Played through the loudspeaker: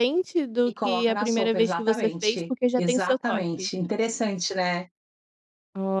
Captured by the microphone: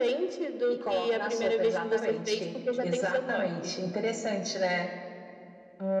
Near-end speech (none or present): none